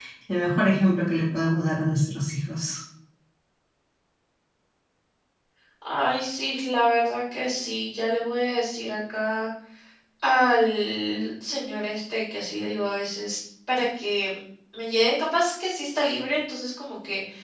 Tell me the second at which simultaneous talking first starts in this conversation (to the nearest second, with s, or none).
none